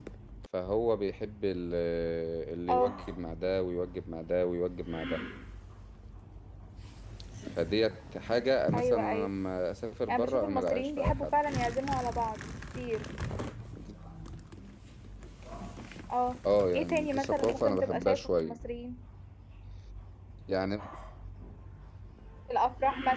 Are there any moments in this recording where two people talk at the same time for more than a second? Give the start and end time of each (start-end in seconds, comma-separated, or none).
10.1-11.4, 16.7-18.6